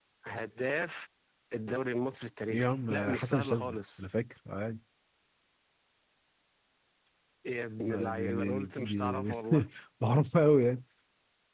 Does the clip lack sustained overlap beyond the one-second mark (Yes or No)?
No